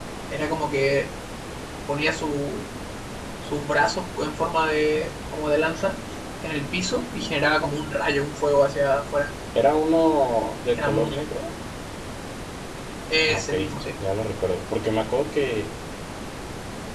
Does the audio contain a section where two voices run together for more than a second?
No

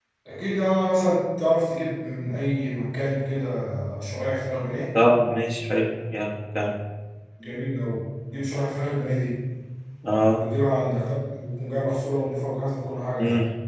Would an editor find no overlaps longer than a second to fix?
Yes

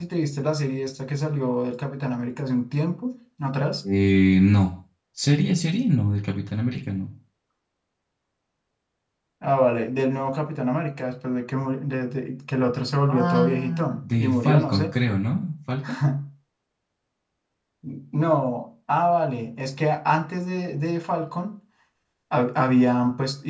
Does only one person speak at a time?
No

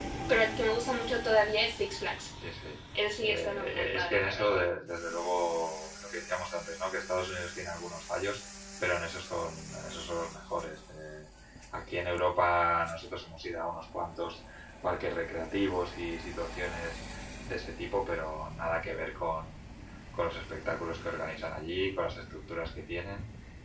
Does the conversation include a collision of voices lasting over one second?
Yes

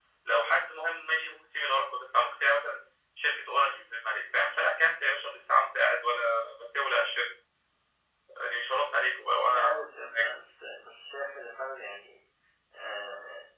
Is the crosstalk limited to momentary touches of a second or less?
Yes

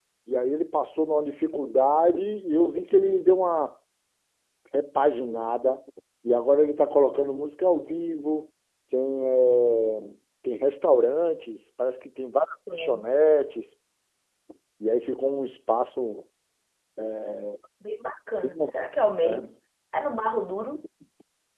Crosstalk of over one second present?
No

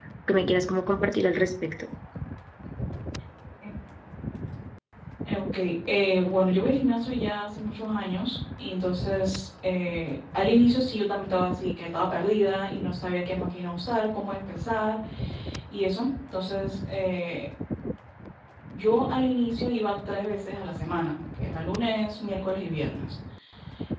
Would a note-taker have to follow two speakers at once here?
No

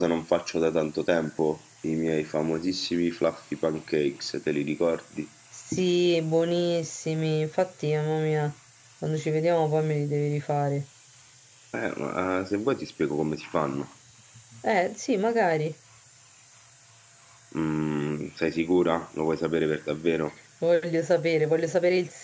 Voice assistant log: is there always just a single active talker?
Yes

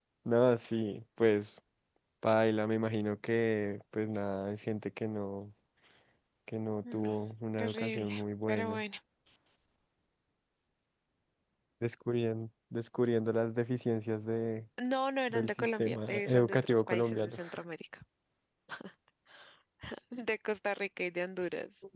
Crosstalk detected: Yes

